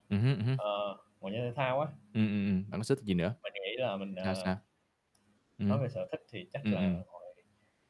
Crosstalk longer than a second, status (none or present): none